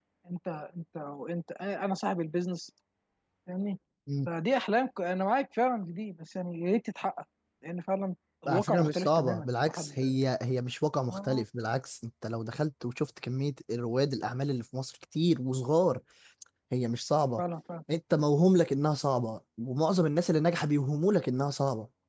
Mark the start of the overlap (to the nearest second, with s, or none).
8 s